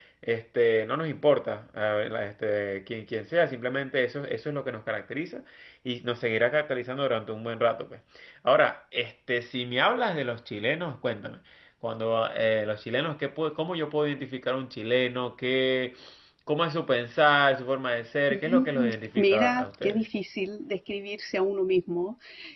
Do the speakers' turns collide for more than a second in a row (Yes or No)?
Yes